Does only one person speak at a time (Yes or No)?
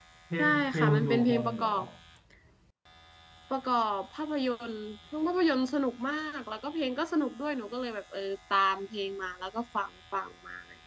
No